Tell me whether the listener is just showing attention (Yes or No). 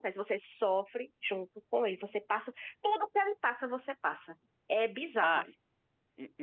No